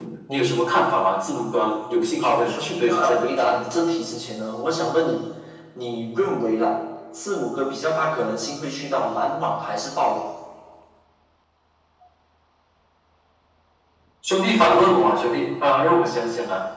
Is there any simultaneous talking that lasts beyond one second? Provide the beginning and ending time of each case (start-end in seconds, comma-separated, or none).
2.2-3.5